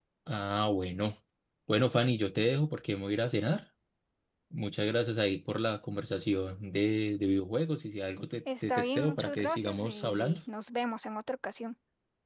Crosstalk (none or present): present